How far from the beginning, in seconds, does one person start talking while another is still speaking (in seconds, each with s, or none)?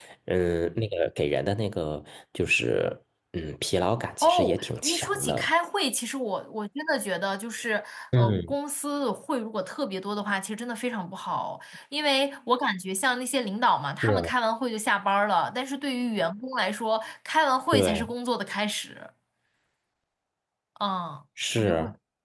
4.2 s